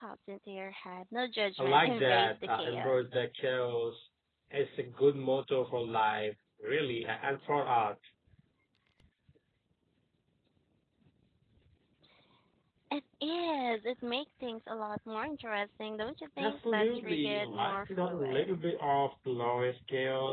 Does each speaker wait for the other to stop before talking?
No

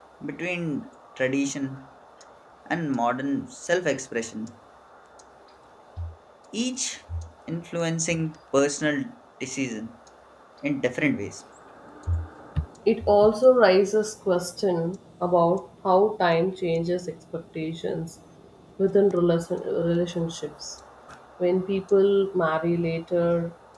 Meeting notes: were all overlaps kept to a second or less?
Yes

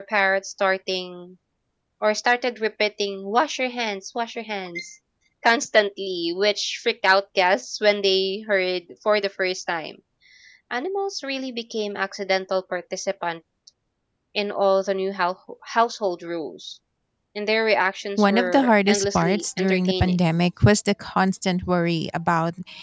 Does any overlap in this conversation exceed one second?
Yes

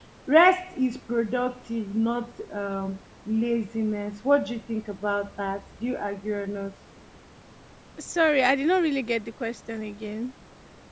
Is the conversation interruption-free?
Yes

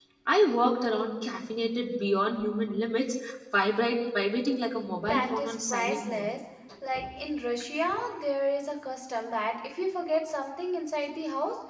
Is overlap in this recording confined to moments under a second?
No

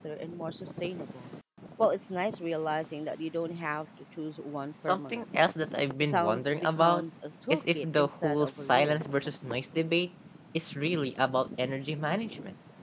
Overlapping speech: Yes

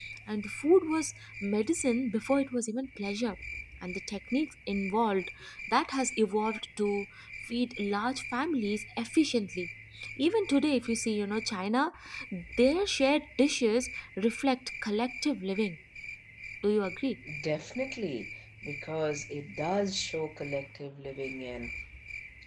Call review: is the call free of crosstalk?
Yes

